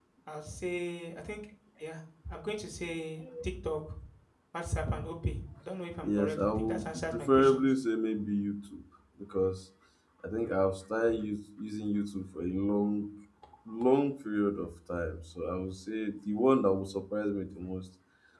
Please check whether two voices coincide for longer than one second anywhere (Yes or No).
Yes